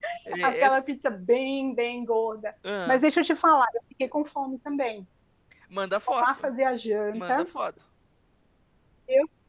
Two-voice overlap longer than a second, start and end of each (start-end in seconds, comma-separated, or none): none